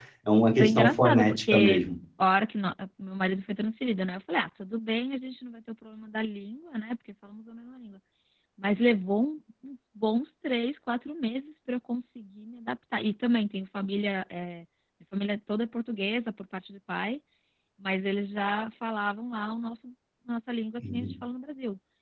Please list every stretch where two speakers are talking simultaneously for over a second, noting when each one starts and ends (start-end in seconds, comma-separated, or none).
0.6-1.8